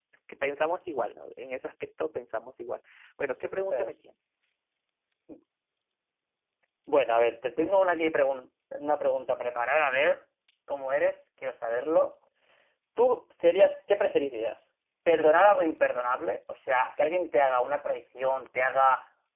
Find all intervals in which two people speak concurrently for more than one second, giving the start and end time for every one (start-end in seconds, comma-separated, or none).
none